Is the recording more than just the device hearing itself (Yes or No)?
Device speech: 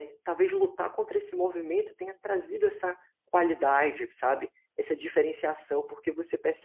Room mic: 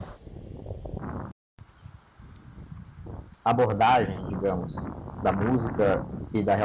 Yes